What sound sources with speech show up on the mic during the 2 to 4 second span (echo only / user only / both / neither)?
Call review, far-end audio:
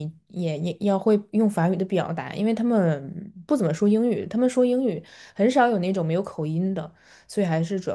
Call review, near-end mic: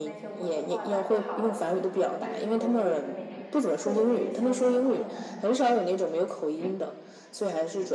both